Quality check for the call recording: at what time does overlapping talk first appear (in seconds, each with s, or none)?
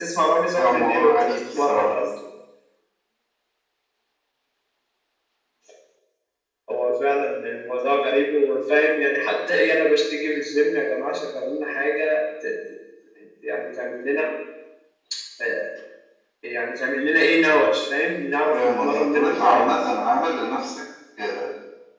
0.6 s